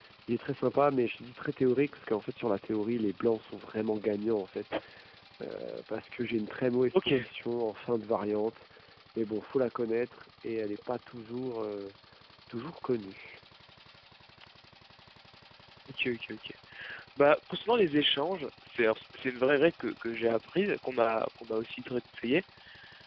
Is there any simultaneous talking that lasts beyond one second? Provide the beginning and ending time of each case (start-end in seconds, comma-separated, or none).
none